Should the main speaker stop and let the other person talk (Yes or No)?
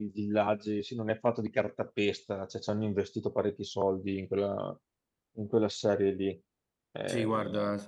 Yes